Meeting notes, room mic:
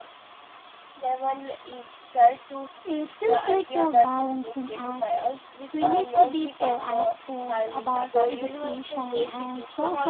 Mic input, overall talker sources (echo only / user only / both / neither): both